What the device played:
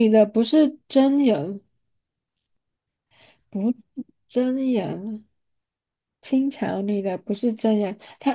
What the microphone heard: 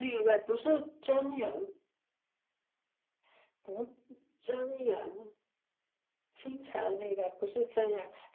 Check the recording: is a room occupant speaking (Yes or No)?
No